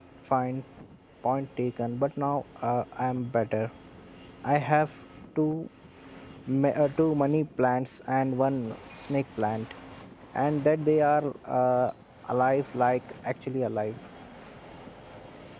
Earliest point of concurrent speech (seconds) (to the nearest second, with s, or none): none